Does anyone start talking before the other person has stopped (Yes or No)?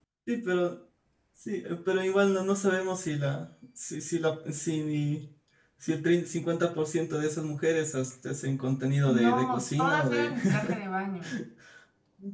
Yes